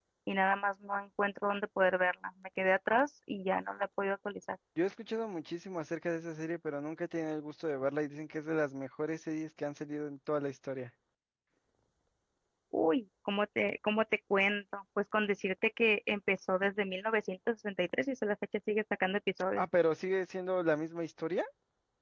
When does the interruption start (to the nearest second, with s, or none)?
none